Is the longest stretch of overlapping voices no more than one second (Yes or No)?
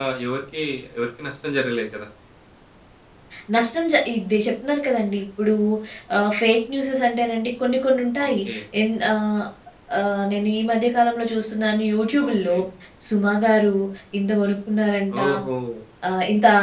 Yes